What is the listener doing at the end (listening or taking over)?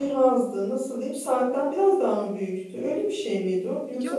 taking over